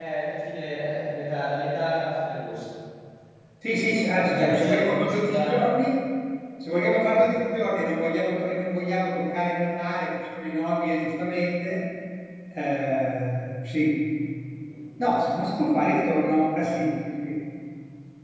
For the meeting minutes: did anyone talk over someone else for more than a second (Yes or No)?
Yes